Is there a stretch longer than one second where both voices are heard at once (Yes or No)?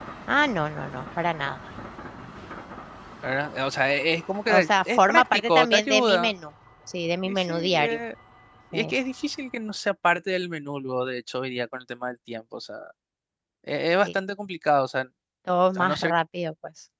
Yes